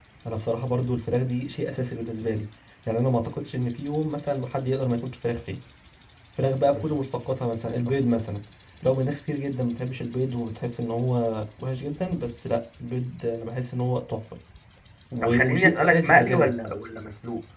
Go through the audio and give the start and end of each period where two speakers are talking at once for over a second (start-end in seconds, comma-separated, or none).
15.2-16.5